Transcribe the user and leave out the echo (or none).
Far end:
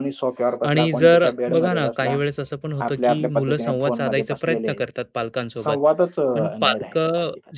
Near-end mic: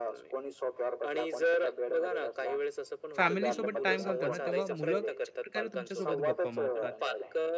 फॅमिलीसोबत टाईम घालतो ना, तेव्हा मुलं कशाप्रकारे तुमच्यासोबत गप्पा मारतात